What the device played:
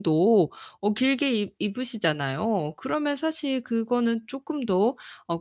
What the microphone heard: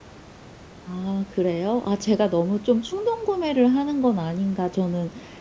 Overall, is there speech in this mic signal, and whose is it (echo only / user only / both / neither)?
user only